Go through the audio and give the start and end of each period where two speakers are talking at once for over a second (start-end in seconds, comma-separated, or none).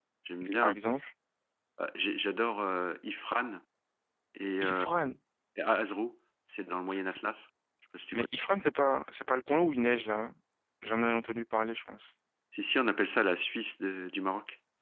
none